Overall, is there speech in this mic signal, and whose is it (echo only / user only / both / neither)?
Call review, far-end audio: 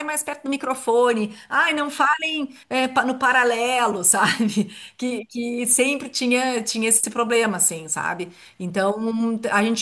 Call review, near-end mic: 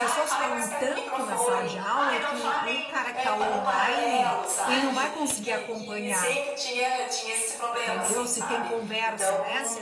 both